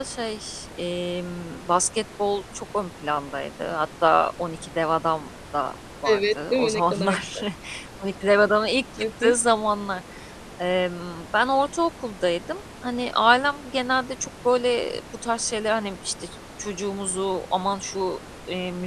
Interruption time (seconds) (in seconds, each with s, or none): 6.0 s